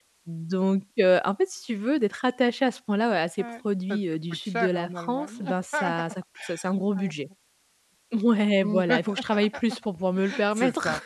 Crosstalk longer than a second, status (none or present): present